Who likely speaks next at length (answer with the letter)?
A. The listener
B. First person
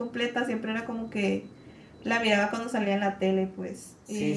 A